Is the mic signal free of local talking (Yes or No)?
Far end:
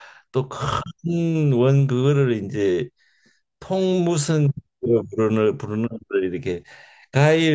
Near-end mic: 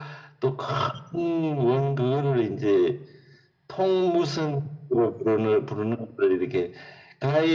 Yes